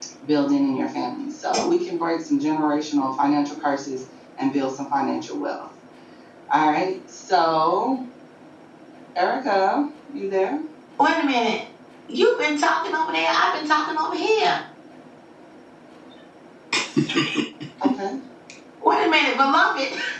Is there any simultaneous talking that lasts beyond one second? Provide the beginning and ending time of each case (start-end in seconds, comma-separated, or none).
none